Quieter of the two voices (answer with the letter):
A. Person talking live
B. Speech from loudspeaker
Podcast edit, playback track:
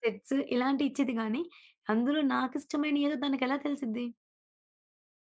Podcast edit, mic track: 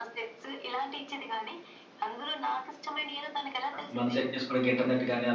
B